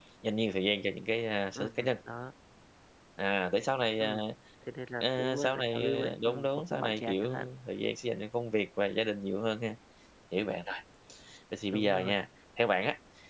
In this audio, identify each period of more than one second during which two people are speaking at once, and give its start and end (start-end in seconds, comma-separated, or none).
5.0-7.2